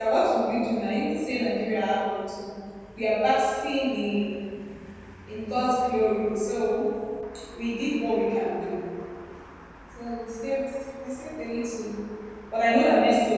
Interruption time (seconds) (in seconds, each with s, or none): none